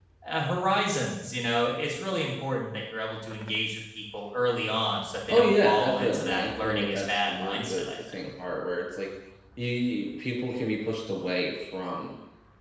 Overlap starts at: 5.3 s

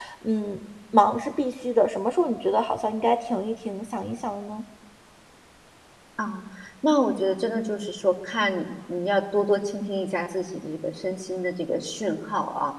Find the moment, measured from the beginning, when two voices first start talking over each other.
none

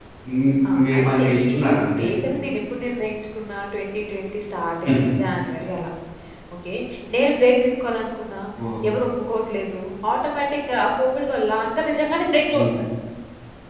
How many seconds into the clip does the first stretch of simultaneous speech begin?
0.7 s

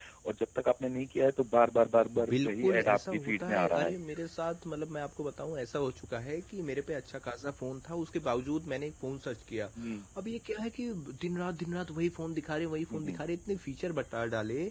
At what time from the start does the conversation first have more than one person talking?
2.3 s

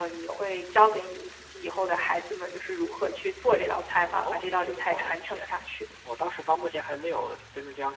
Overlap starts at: 4.2 s

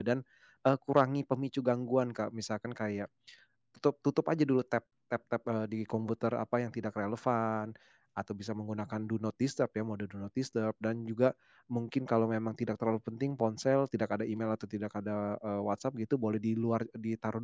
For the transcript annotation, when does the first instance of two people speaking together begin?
none

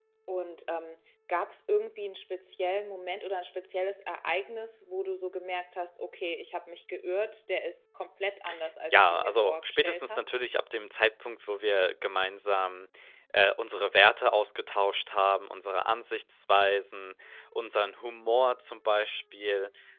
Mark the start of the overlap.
8.9 s

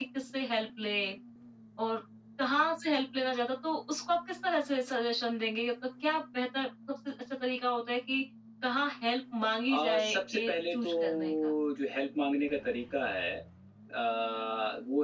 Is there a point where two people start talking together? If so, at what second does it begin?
9.7 s

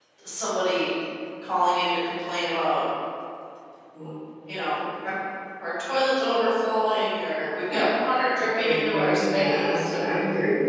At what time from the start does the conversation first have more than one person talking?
8.6 s

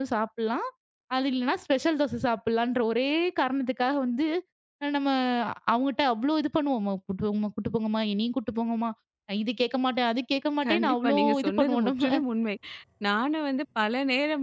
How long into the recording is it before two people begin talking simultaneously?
10.6 s

